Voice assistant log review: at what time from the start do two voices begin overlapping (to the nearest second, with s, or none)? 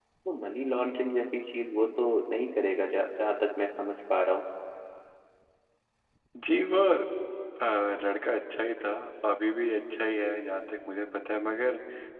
none